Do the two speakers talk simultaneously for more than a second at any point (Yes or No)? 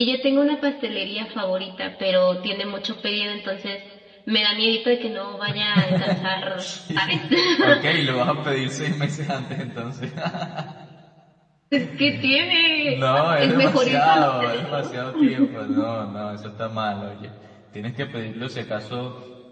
Yes